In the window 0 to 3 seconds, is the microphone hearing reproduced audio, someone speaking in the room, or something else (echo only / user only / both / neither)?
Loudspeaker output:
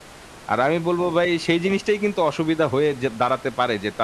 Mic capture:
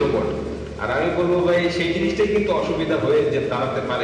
echo only